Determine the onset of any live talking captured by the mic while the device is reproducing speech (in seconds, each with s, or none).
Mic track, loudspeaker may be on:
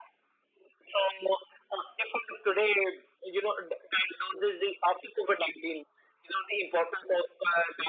none